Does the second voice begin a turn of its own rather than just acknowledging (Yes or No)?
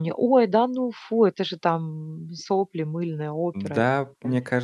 Yes